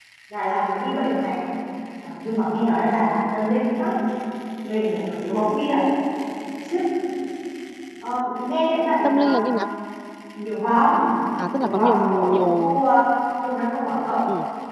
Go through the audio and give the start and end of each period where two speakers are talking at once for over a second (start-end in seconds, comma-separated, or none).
11.6-12.8